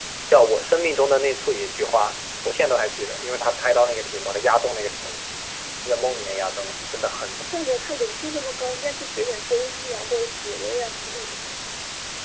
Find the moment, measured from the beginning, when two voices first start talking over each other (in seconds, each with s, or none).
none